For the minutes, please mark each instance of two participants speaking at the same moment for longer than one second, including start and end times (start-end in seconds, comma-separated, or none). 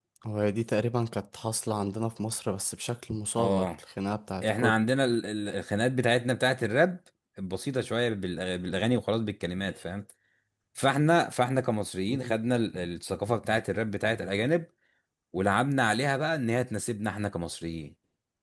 none